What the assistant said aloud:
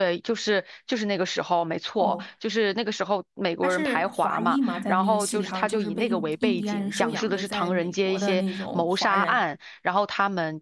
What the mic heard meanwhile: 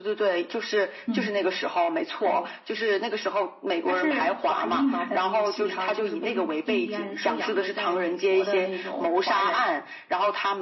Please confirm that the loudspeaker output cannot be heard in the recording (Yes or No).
No